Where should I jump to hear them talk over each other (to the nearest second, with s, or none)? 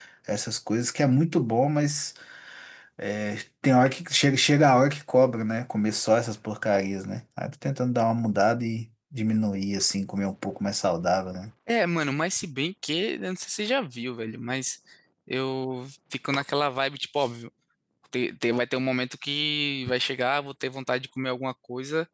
none